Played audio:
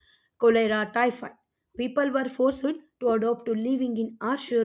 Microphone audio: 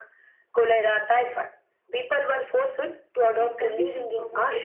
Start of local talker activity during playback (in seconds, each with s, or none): 3.3 s